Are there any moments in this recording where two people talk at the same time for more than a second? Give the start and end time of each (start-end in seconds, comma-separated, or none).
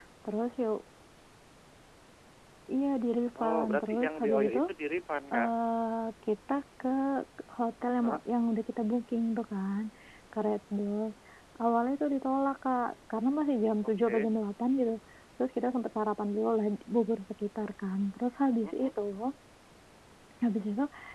3.4-4.6